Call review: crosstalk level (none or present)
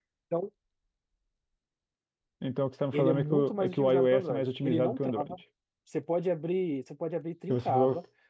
present